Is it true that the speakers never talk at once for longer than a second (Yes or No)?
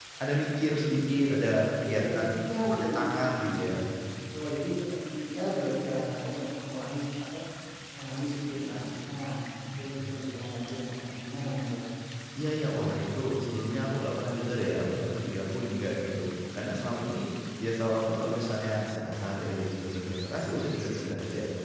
No